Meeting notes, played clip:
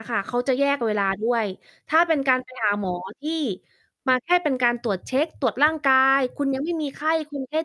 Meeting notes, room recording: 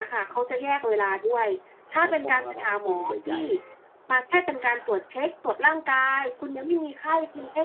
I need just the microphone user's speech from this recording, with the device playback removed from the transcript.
เขามองระดับกลุ่มใหญ่

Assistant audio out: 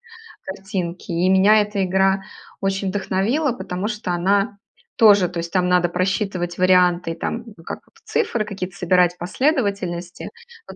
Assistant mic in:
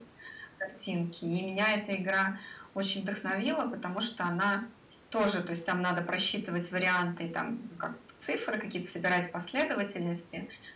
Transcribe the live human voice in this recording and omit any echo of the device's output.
none

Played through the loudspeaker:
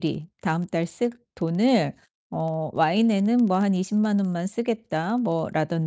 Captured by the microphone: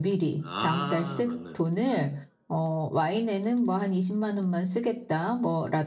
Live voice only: 아, 맞네요. 예.

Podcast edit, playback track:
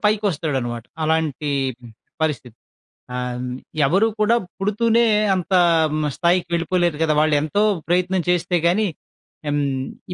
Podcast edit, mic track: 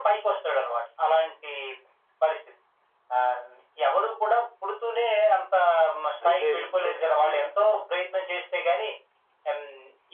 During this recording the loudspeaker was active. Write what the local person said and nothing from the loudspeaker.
అయితే, ఇప్పుడు హ్మ్. చెప్పండి.

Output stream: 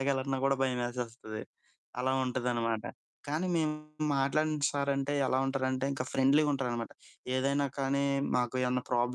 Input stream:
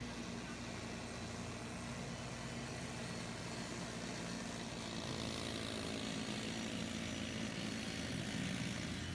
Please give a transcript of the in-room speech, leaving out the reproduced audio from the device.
none

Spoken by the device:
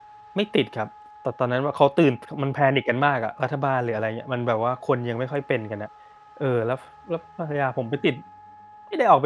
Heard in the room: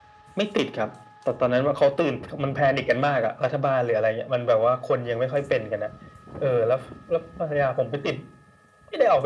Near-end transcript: none

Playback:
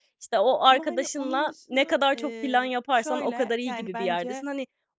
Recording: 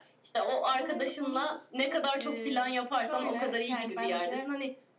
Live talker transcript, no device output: none

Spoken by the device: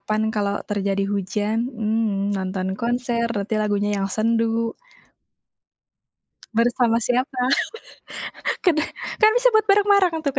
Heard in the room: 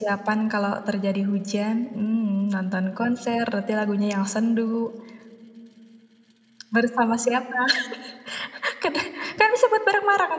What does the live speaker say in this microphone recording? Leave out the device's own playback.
none

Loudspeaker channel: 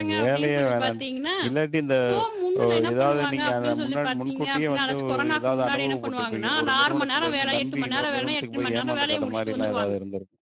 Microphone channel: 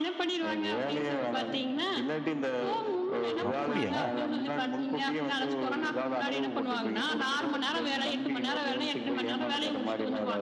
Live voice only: அப்பிடியா?

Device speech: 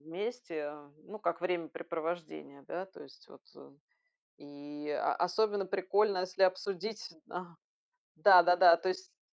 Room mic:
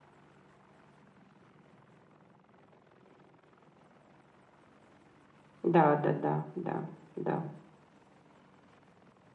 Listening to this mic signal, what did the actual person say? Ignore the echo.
Да-да-да, да, да.

